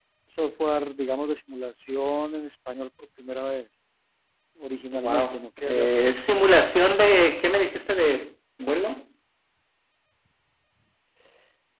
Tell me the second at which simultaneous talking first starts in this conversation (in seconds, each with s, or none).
4.9 s